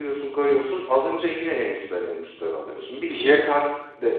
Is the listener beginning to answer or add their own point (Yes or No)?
No